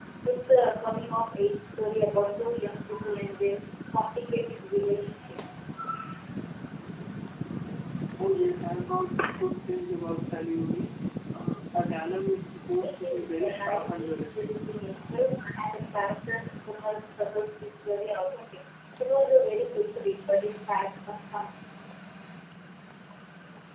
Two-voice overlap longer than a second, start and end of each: 12.8-14.5

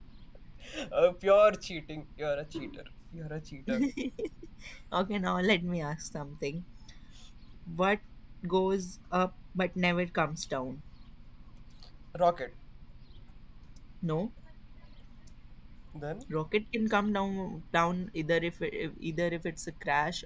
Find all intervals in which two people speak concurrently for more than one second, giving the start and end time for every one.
none

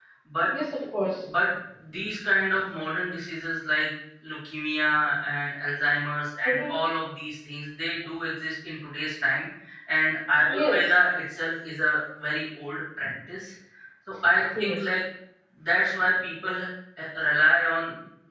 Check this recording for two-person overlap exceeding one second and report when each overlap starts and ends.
none

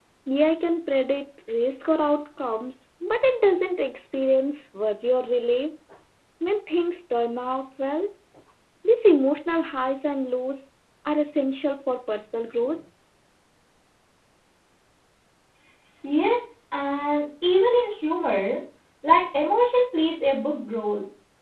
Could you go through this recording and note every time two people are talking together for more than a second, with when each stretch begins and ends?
none

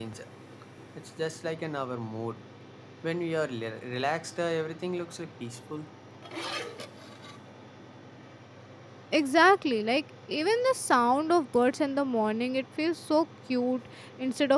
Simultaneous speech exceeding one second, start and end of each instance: none

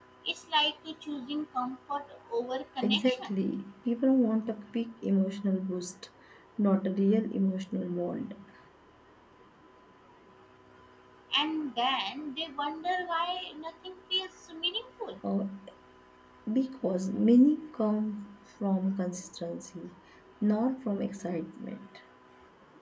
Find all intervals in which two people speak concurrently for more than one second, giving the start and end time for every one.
none

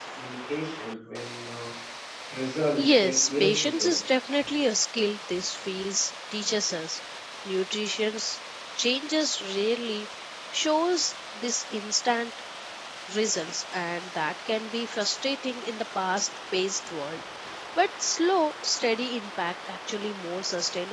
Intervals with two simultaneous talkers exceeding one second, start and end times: 2.8-4.0

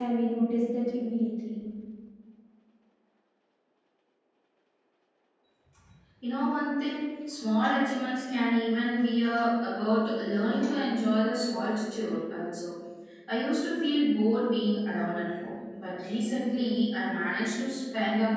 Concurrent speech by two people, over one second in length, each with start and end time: none

